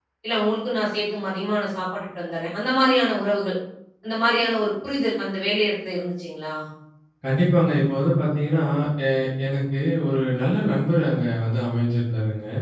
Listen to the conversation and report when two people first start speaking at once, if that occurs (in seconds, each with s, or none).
none